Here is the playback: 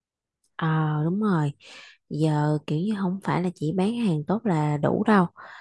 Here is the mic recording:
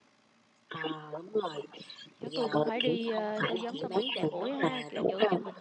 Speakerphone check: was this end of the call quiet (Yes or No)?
No